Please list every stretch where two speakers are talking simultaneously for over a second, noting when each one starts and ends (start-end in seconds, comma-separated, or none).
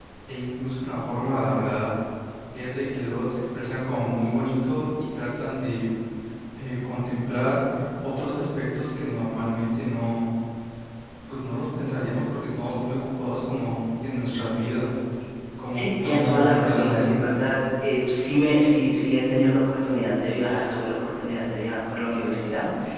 15.7-17.2